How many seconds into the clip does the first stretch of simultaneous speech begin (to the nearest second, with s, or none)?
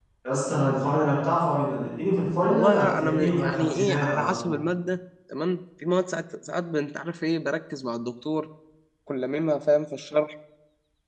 2 s